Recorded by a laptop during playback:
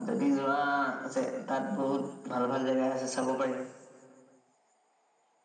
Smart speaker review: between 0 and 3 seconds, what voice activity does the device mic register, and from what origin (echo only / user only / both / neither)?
echo only